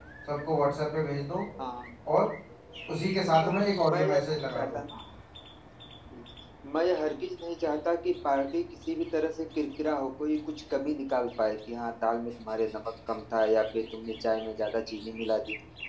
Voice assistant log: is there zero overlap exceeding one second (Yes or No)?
No